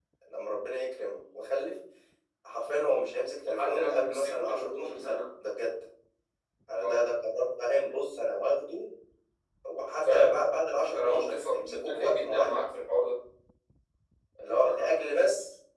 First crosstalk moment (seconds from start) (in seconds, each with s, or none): 3.4 s